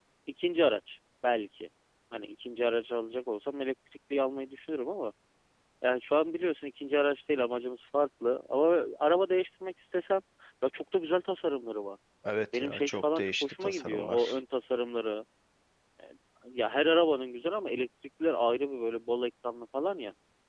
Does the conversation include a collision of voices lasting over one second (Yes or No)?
Yes